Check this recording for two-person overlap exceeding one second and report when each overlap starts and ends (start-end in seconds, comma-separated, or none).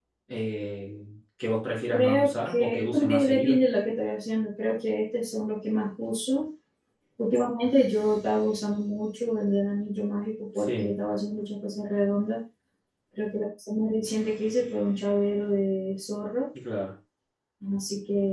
1.9-3.6